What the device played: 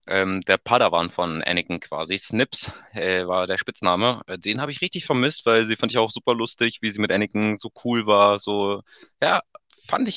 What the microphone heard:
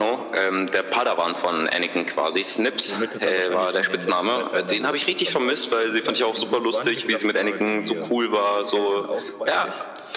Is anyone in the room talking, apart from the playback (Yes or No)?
Yes